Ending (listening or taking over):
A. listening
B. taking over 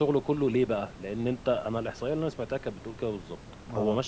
A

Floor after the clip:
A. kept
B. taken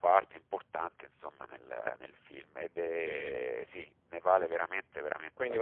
B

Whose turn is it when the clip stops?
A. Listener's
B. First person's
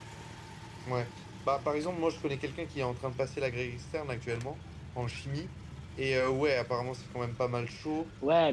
A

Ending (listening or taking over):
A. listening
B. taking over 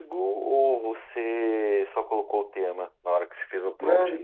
B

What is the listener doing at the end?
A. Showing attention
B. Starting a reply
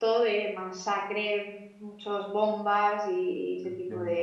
B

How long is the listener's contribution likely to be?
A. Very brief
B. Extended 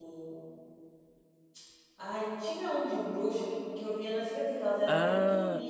A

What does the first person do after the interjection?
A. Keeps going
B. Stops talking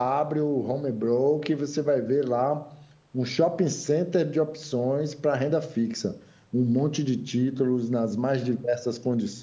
A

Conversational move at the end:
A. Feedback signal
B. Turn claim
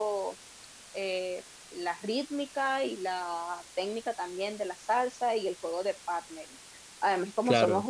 A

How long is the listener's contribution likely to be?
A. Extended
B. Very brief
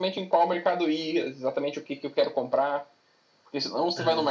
B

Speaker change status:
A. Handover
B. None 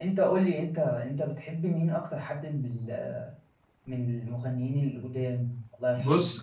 A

